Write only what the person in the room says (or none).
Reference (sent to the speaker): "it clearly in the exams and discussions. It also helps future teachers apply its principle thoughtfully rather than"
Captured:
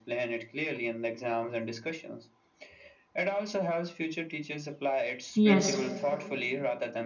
Yes.